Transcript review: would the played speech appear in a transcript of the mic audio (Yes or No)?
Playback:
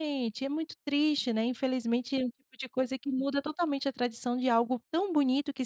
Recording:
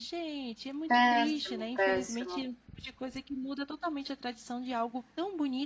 Yes